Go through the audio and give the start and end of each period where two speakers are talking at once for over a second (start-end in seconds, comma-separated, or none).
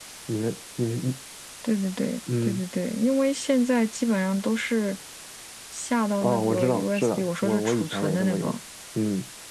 6.2-8.5